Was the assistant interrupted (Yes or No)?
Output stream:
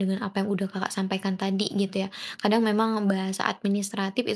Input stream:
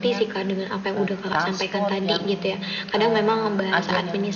Yes